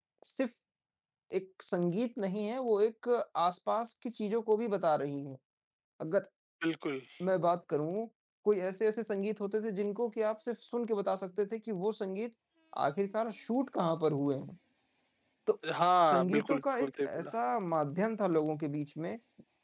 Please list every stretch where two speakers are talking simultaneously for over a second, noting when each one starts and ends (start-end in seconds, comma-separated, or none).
16.0-17.3